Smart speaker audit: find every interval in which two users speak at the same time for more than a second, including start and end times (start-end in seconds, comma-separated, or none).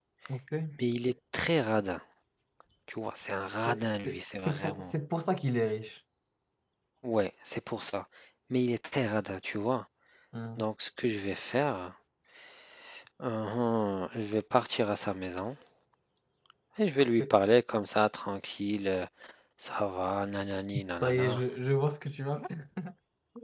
3.5-4.9